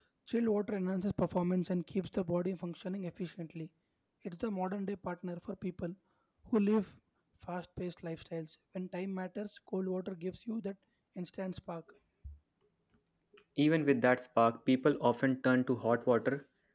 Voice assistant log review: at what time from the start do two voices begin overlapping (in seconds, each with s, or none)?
none